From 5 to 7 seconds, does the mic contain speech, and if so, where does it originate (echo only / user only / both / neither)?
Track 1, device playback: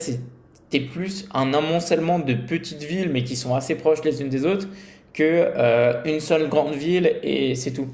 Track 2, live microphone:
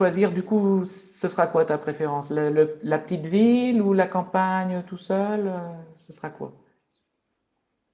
user only